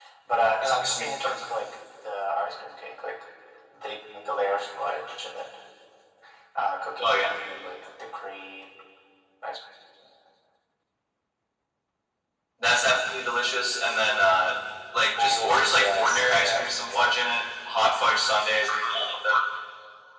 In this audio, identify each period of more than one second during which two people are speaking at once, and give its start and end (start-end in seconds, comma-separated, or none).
15.2-17.1